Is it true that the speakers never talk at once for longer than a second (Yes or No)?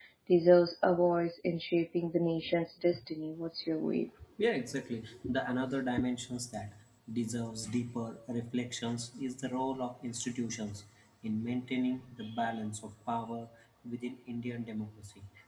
Yes